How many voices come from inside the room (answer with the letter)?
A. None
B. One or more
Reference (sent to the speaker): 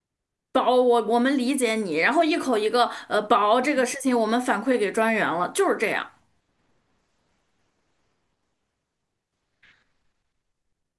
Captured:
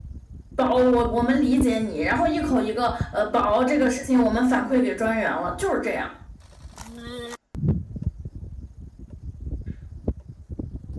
A